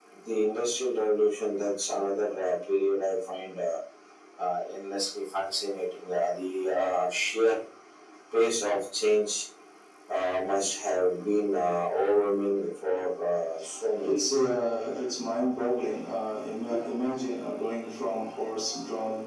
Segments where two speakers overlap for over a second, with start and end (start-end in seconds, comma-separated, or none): none